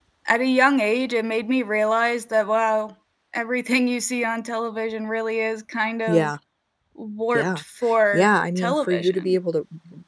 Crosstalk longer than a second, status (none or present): present